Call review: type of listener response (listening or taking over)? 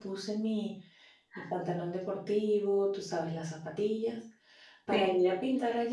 listening